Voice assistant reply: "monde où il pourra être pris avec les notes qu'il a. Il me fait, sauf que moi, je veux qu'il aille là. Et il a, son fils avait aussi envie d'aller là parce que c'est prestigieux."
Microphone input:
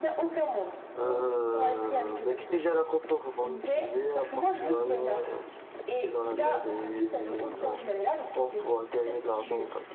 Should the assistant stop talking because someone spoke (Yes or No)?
Yes